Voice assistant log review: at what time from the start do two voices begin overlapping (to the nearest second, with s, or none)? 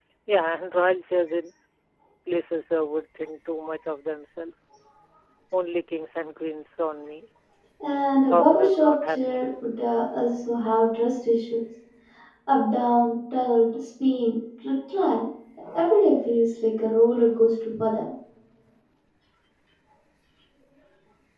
8 s